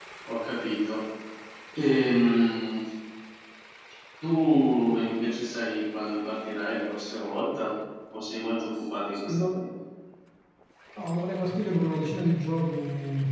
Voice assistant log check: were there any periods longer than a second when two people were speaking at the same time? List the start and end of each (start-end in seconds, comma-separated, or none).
none